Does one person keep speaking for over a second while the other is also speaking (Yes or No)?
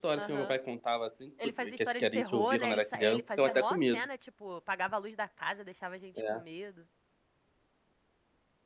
Yes